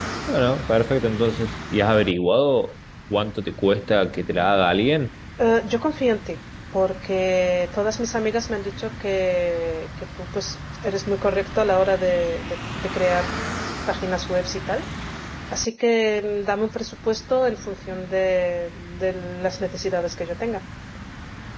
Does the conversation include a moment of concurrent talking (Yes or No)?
No